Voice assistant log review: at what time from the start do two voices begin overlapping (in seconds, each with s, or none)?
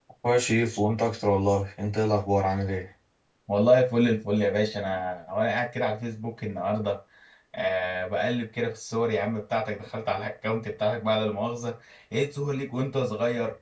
none